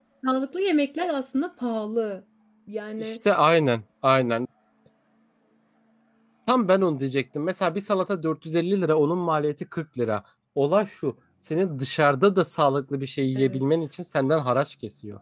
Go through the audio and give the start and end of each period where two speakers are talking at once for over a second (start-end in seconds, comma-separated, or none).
none